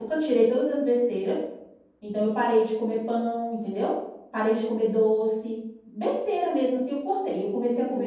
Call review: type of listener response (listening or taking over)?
taking over